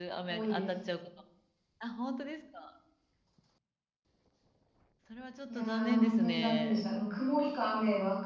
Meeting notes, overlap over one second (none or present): present